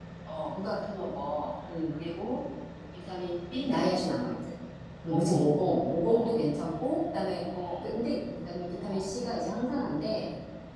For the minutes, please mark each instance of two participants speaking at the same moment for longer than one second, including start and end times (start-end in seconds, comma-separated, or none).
none